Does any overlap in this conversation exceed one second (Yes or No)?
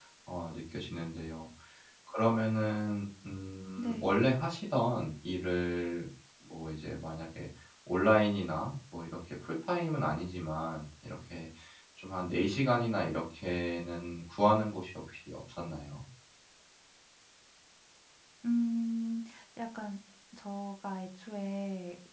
No